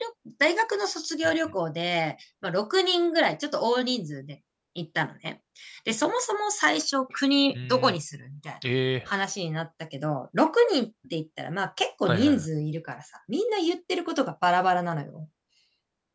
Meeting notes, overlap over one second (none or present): none